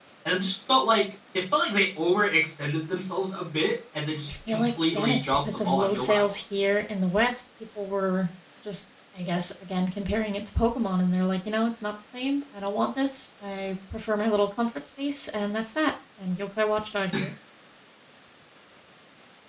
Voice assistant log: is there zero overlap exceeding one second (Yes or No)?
No